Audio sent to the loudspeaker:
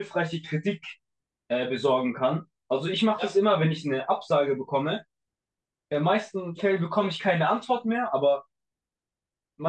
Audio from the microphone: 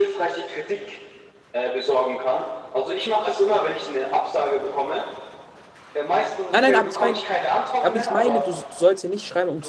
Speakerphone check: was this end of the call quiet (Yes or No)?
No